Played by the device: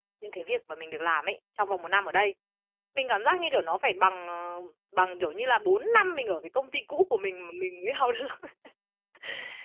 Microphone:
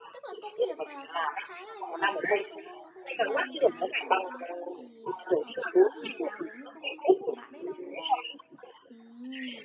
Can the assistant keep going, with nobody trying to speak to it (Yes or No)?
No